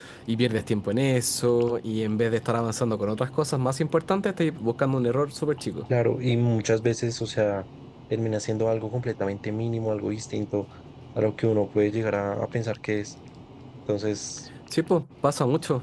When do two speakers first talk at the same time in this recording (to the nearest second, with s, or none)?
none